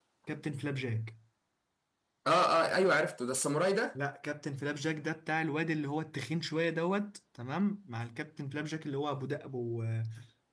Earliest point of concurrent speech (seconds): none

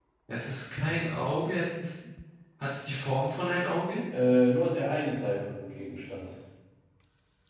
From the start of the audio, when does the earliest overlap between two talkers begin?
none

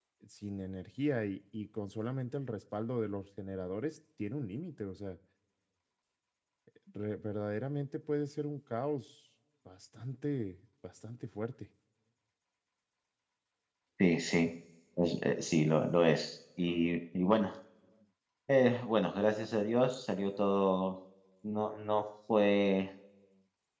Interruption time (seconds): none

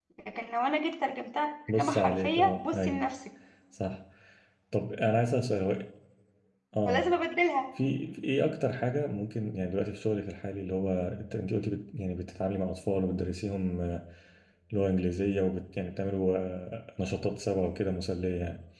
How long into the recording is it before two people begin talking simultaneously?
2 s

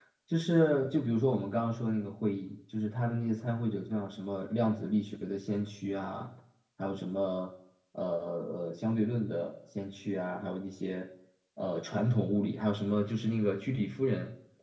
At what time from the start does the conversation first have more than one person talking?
none

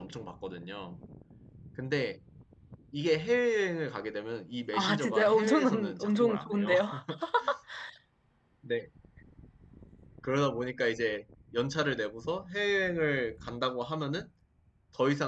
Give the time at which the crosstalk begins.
5 s

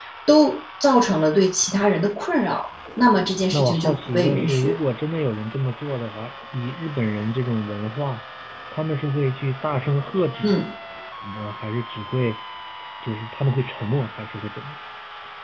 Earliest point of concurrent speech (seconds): 4 s

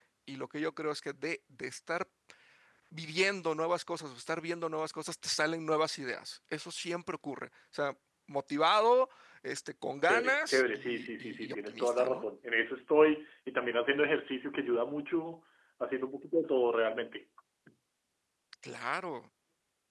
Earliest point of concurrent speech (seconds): 10 s

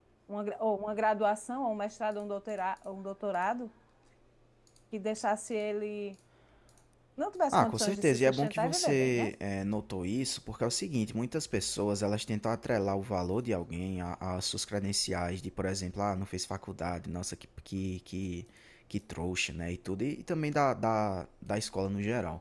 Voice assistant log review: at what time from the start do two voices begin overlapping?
8 s

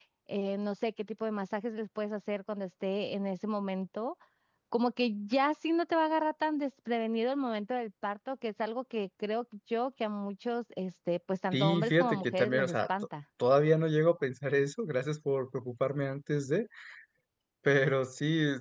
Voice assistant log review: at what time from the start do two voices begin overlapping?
12 s

